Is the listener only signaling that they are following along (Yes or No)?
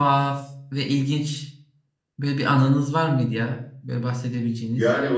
No